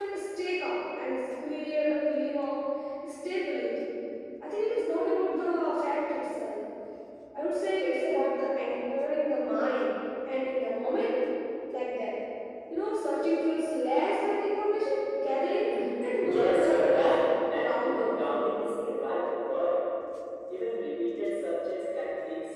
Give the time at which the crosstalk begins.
16.3 s

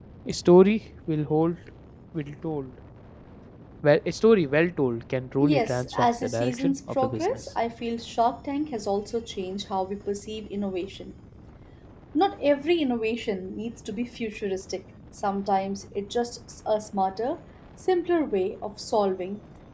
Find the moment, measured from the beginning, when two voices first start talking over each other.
5.4 s

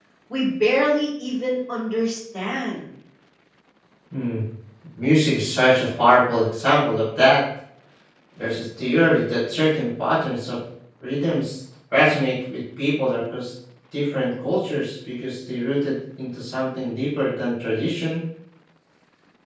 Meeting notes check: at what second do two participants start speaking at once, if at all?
none

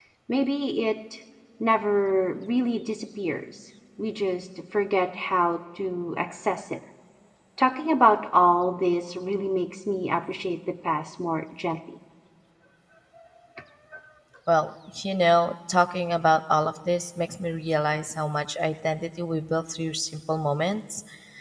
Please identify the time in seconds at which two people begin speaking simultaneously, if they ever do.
none

